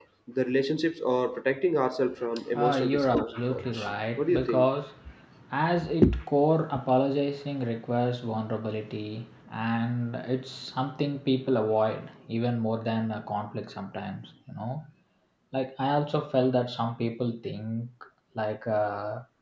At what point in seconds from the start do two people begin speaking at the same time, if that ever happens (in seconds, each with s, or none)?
2.6 s